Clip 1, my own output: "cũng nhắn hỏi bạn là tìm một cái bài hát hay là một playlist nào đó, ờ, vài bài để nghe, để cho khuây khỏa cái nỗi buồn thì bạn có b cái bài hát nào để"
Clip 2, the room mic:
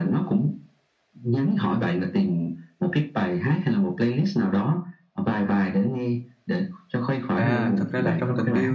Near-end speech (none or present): present